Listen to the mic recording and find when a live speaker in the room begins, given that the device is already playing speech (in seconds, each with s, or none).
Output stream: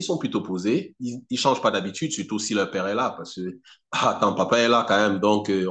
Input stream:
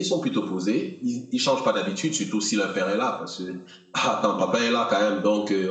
none